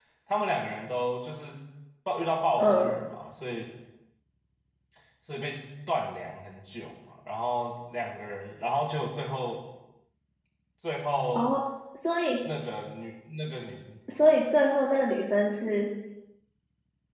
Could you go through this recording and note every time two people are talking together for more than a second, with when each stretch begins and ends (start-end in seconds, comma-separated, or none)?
none